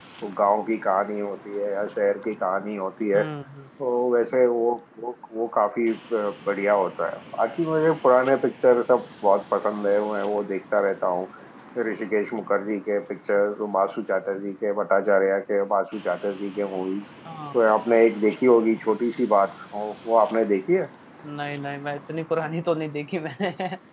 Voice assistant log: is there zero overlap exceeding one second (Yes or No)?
Yes